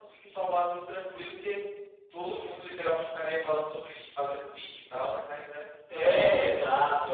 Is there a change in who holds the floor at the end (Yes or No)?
Yes